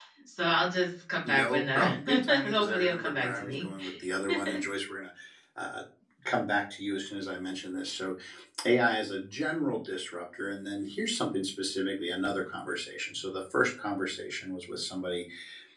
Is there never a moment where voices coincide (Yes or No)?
No